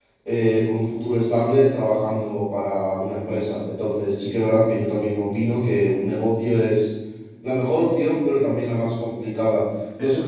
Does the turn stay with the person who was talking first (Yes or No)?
Yes